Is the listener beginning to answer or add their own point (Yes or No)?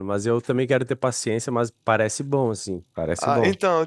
Yes